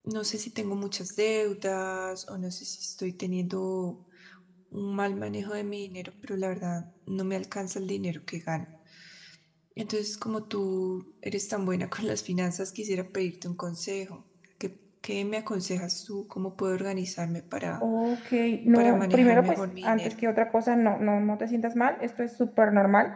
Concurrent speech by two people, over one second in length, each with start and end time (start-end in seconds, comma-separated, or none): 18.8-20.1